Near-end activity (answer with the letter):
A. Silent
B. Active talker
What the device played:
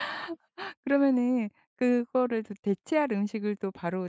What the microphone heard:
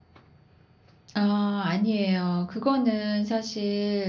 B